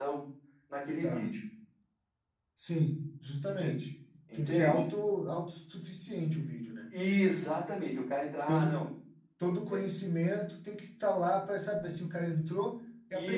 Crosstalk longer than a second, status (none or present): none